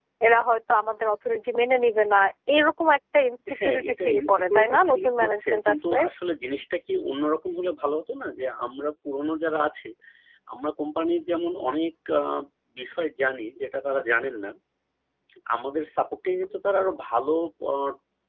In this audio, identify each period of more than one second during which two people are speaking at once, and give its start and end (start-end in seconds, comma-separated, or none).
3.6-6.0